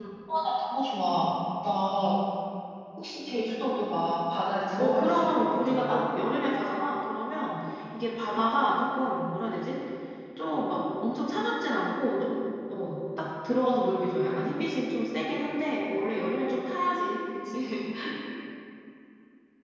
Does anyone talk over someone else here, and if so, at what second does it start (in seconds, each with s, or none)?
4.8 s